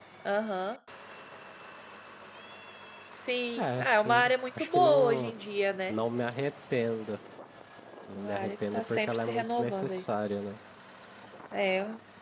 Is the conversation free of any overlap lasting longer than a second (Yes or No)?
No